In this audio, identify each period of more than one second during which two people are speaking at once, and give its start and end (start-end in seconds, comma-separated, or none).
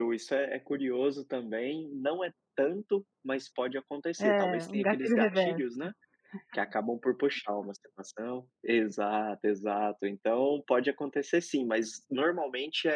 4.2-5.6